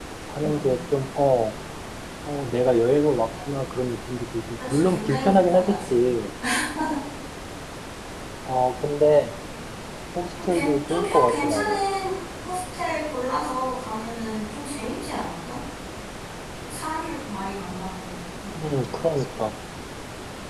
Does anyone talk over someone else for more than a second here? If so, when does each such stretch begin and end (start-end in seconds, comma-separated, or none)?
4.6-6.0, 10.4-11.8